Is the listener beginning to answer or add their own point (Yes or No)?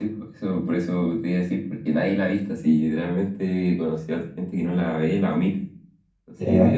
No